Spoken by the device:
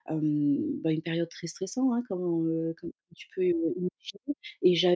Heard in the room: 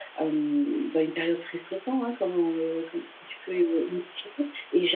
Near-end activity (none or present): none